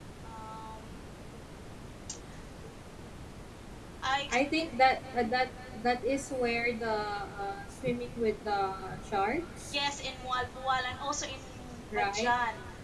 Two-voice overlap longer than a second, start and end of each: none

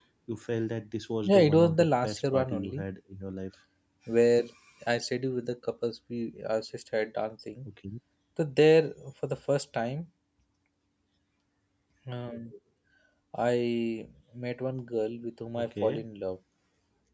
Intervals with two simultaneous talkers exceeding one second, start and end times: 1.2-2.8

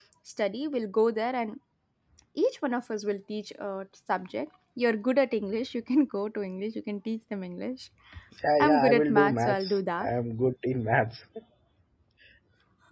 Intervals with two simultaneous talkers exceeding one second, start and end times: 8.6-10.1

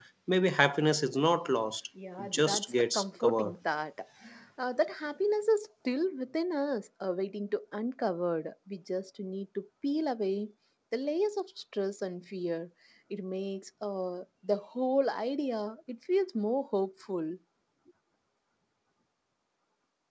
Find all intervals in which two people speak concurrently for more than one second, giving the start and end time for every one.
2.2-3.5

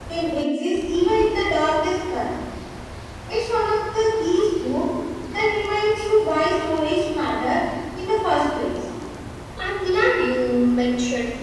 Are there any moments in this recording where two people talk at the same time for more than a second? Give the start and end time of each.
none

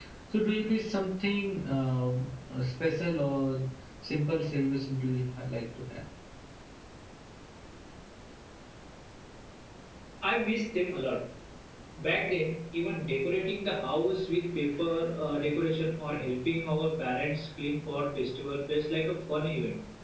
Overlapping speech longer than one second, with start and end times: none

